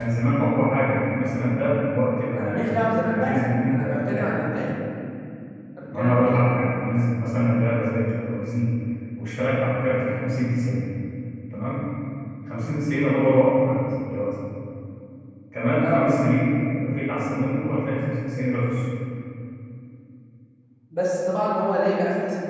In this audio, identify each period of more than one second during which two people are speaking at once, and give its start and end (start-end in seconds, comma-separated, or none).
3.1-4.3